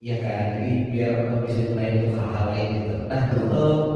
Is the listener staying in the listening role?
Yes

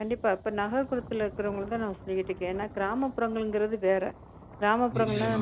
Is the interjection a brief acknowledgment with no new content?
Yes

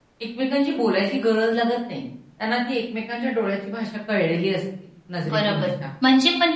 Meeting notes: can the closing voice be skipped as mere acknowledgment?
No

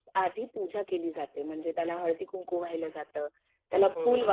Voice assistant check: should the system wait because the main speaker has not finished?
Yes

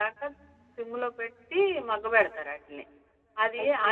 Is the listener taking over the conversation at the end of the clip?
No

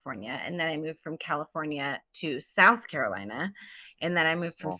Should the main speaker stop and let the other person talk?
No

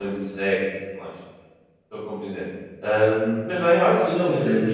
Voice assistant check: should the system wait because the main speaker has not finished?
No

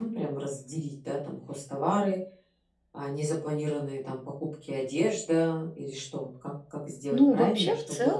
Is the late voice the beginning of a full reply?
Yes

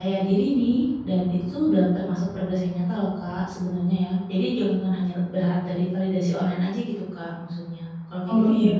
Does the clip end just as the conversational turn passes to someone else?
Yes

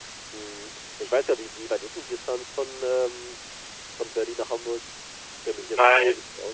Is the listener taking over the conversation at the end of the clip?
Yes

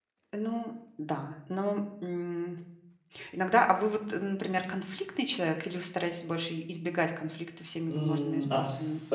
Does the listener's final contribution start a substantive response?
Yes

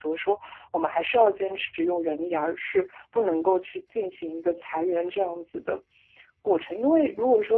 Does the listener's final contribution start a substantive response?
No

